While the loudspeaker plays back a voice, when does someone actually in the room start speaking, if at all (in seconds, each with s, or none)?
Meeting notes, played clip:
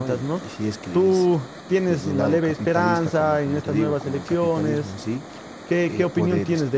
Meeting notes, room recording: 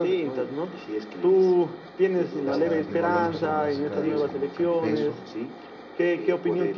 2.5 s